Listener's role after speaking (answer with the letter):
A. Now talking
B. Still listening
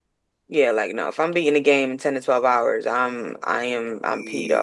A